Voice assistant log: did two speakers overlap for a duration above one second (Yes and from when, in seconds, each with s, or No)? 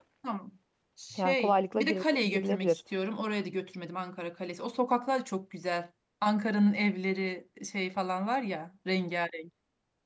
Yes, from 1.2 s